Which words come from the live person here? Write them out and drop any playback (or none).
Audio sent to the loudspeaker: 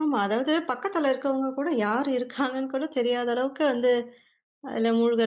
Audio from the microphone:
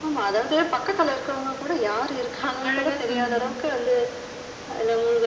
அழகா சொன்னாங்க.